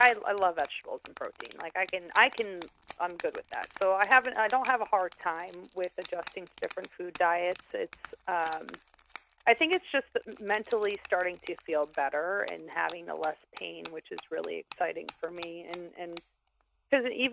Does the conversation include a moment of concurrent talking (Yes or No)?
No